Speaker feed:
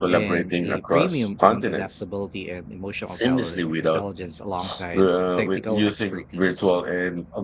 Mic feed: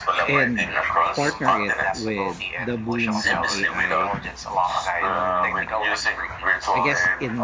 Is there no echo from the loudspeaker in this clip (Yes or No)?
No